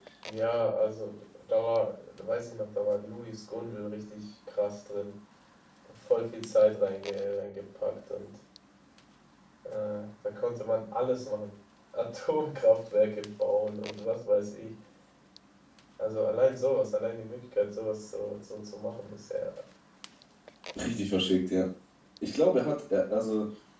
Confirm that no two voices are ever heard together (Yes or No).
Yes